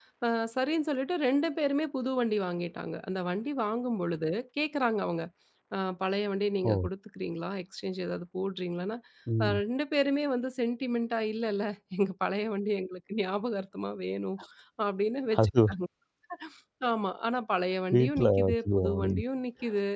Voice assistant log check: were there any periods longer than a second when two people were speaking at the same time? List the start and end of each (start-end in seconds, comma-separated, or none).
17.9-19.2